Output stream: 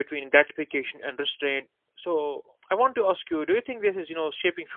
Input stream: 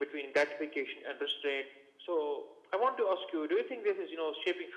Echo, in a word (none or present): present